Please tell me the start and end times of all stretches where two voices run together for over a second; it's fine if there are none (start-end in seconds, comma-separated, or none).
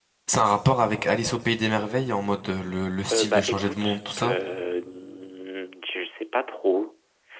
3.1-4.3